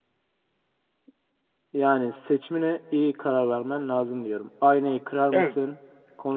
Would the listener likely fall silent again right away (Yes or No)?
Yes